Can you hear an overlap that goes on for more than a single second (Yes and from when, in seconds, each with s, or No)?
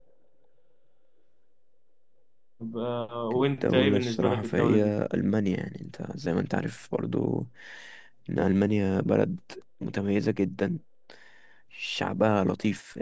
Yes, from 3.4 s